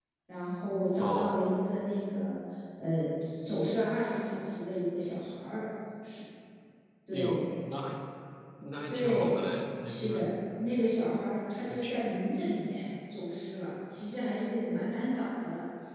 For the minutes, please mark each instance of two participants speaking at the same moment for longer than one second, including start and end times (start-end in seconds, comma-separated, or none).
8.9-10.2